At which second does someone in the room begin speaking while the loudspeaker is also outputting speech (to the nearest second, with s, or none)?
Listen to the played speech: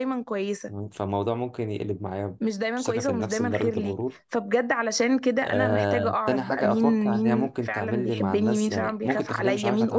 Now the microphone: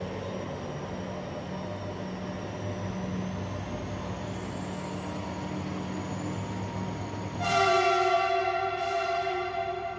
none